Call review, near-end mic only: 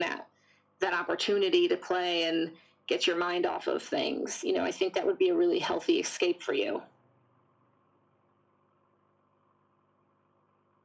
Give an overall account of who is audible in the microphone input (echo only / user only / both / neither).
echo only